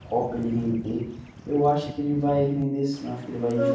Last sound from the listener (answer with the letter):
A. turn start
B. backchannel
A